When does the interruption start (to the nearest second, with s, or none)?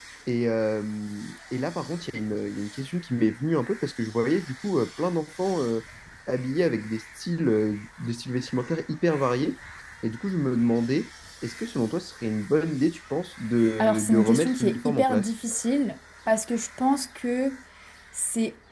14 s